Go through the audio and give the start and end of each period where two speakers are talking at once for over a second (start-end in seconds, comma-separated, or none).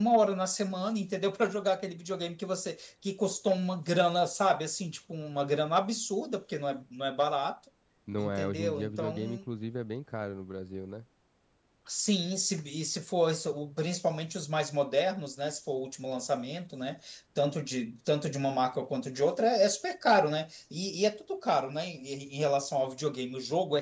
8.2-9.4